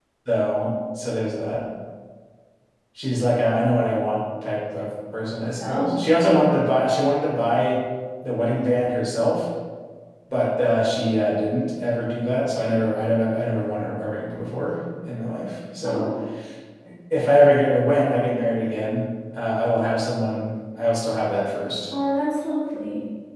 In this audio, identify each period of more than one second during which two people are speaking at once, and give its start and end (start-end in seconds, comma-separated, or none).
none